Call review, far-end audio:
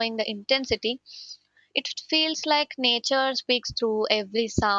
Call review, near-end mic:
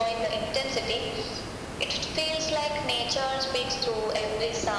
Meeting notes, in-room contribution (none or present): none